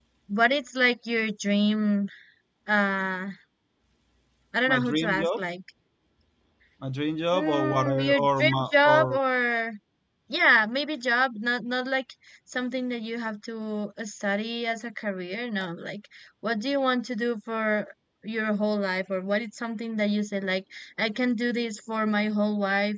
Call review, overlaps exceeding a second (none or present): present